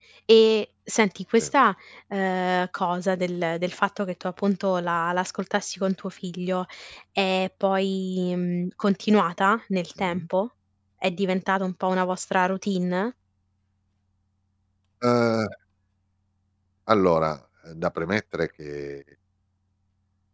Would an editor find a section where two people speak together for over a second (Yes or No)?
No